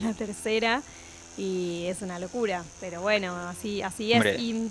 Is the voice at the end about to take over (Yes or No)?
No